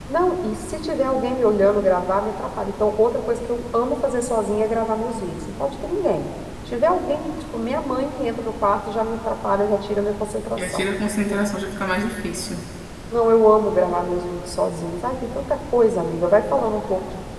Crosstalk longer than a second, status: none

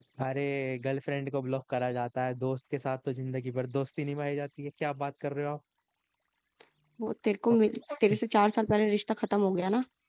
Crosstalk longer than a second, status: none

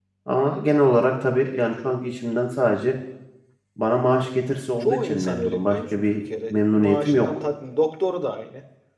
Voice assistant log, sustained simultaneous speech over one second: present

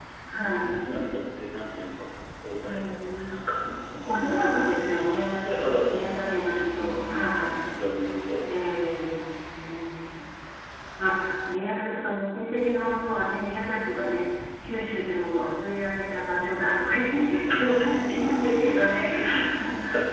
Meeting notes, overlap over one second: present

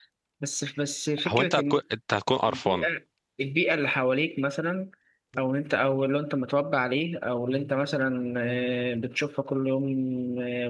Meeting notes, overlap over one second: none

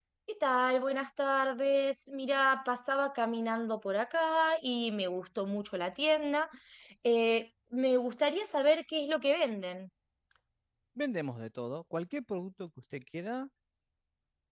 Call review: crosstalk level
none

